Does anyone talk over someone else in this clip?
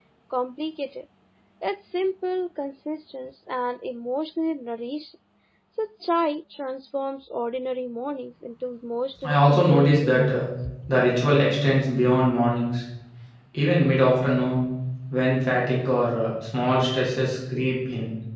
Yes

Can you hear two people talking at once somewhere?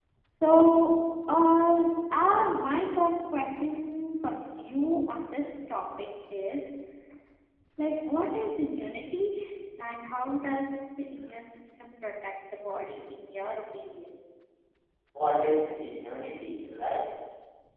No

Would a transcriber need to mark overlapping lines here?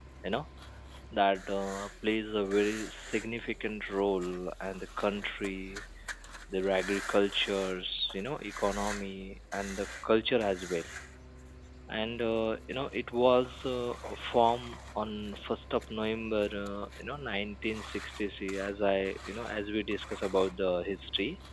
No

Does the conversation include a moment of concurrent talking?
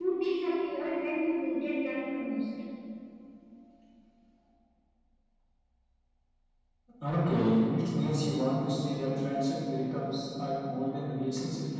No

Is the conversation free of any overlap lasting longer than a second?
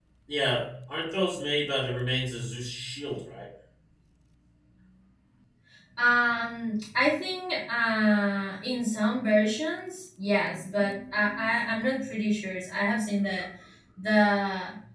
Yes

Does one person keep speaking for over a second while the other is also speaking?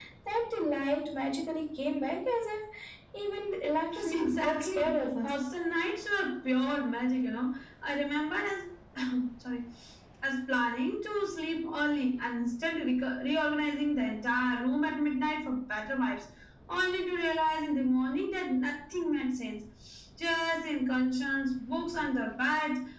Yes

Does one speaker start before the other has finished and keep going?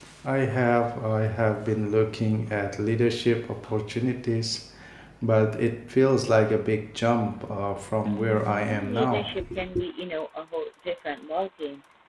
Yes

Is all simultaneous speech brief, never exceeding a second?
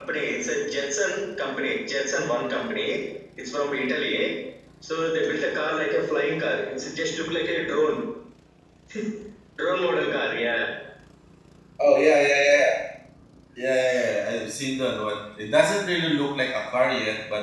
Yes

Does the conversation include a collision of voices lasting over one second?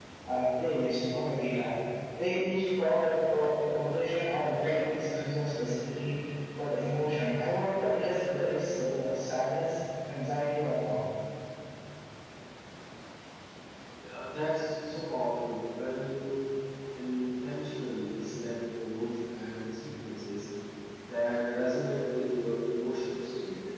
No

